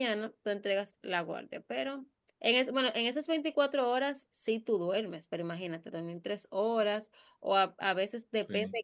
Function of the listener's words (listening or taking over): listening